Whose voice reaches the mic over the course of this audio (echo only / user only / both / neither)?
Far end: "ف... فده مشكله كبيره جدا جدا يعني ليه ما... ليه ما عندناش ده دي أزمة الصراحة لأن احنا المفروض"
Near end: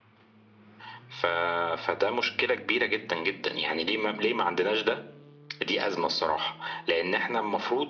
echo only